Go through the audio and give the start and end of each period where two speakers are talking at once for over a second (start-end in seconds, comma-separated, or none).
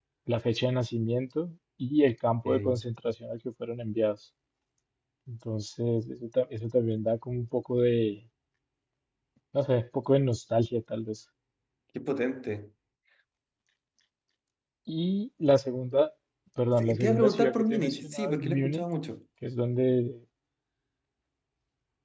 16.8-18.8